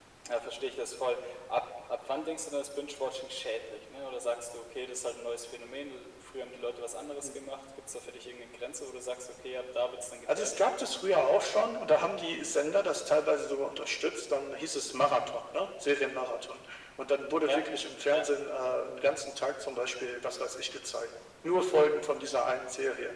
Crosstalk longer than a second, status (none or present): none